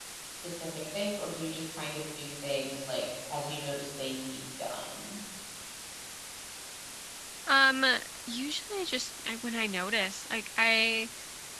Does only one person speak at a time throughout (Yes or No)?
Yes